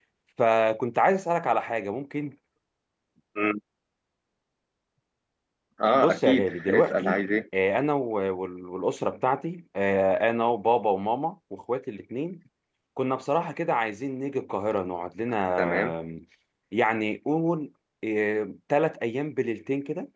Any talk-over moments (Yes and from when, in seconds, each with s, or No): Yes, from 5.9 s